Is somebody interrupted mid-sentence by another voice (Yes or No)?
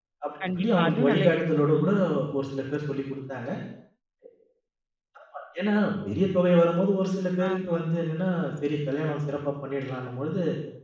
Yes